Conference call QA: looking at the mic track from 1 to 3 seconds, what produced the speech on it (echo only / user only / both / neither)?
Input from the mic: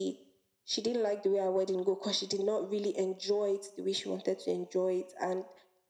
echo only